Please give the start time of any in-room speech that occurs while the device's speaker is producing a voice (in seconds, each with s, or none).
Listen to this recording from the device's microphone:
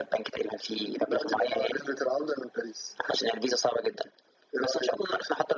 none